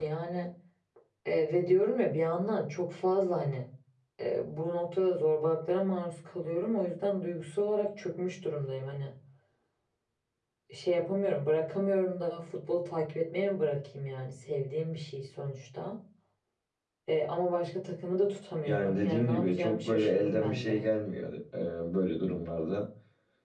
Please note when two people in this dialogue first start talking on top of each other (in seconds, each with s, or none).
18.7 s